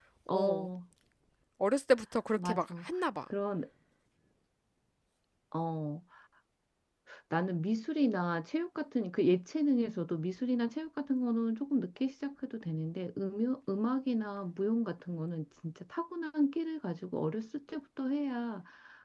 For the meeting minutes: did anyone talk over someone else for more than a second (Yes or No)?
No